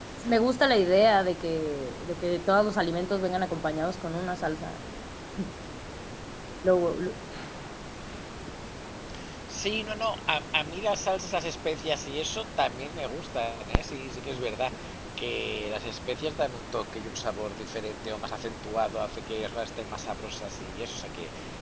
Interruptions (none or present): none